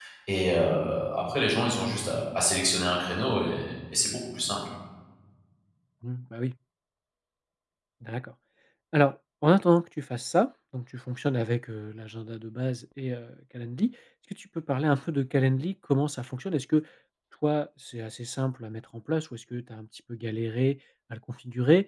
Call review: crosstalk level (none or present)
none